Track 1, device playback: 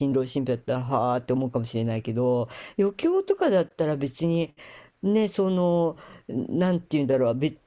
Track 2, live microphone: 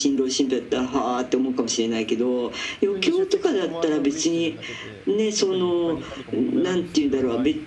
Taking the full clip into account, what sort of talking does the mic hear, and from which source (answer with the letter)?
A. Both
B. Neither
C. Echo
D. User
A